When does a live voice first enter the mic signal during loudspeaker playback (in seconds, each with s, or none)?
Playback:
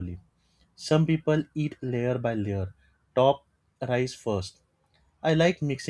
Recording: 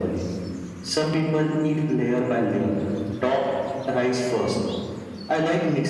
none